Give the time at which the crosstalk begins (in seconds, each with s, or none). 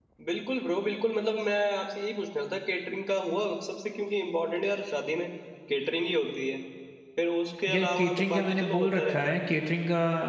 7.7 s